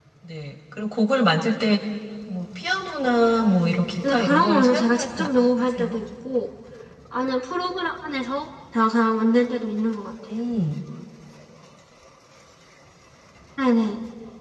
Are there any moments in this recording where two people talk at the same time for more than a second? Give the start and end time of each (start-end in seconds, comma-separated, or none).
4.1-6.0